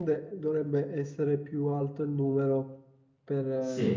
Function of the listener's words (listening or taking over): taking over